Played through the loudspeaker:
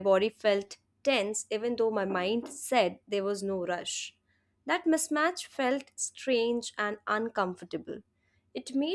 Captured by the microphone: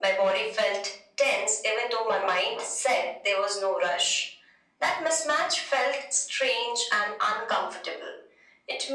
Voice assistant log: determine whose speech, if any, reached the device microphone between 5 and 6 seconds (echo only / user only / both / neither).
echo only